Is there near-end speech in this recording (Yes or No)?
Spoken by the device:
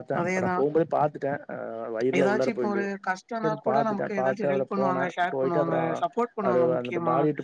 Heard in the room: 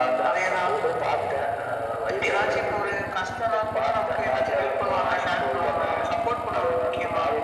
No